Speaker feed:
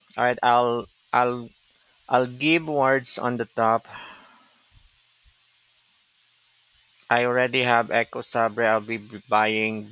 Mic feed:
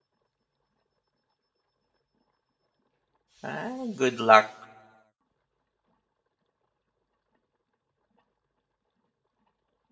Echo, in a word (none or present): none